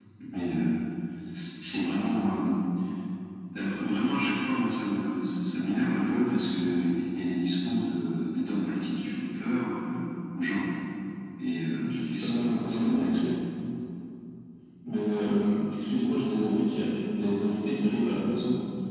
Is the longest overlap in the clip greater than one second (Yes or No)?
Yes